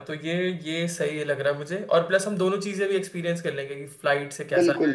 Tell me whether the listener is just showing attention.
No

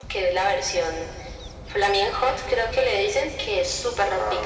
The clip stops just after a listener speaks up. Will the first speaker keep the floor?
No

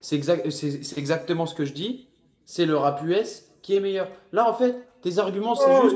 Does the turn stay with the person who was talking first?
No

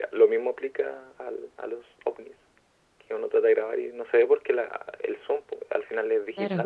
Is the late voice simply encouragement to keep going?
Yes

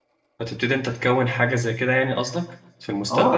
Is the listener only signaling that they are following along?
No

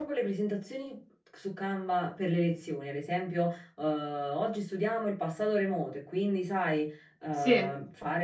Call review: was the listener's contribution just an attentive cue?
Yes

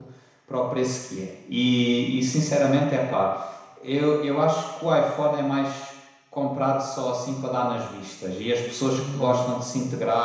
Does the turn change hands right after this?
No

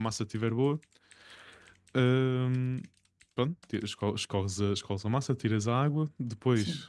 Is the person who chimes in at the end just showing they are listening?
Yes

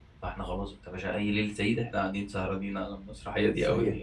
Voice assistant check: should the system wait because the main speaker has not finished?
No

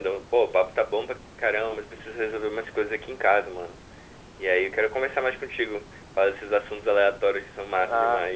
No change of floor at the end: No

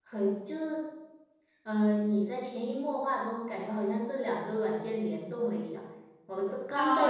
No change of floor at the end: No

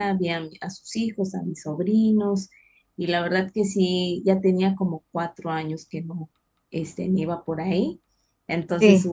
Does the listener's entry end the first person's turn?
No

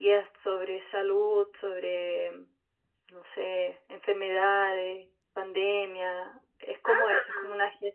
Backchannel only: Yes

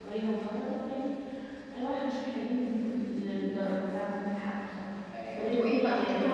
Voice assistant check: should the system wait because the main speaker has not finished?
No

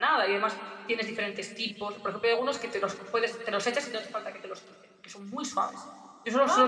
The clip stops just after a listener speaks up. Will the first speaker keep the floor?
Yes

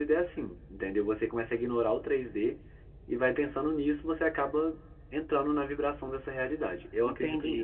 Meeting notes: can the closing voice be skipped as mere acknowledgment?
No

